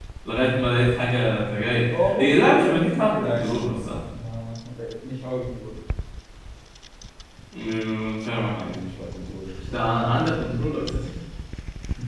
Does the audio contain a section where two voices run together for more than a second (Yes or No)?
Yes